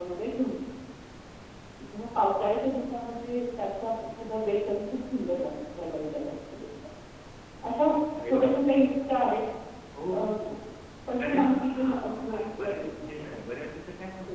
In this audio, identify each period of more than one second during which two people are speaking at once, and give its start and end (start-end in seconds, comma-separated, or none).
11.2-13.3